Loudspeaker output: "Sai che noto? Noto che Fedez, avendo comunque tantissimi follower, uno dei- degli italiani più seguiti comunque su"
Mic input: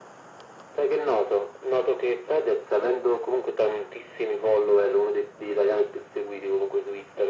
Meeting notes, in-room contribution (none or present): none